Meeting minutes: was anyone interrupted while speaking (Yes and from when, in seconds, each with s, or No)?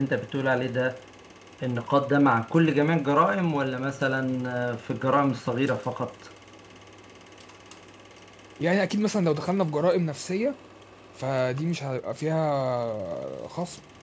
No